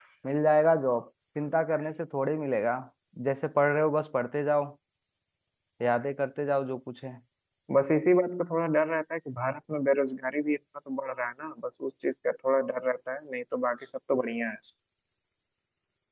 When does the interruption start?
none

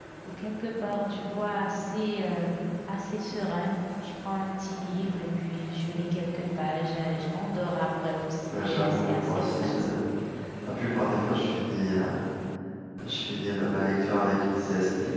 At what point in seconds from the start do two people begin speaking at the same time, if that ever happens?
8 s

